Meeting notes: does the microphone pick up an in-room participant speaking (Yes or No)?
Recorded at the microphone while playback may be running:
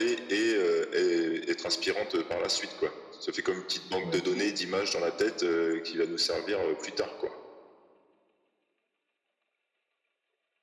Yes